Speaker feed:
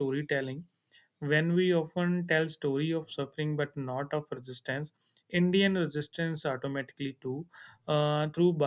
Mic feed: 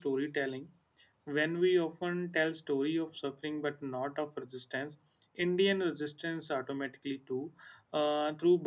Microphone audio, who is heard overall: echo only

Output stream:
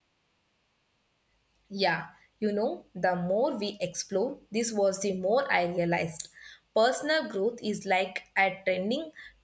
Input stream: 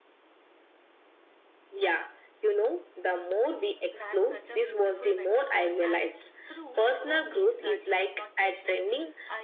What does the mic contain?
both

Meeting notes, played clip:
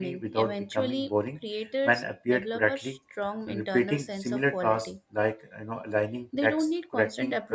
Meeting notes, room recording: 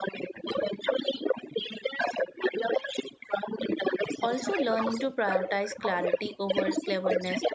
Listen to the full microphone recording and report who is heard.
both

